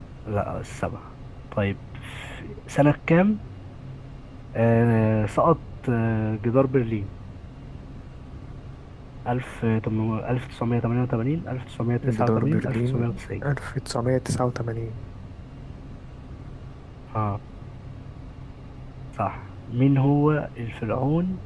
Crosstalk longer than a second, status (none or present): present